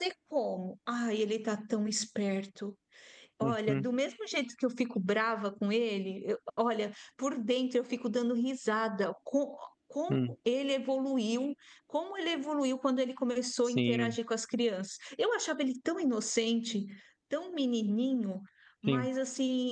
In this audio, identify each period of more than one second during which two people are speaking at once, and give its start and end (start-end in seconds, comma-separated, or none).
none